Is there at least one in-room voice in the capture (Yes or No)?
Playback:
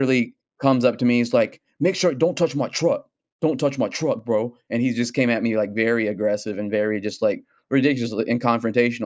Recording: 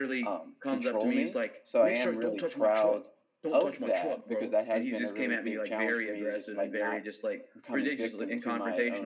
Yes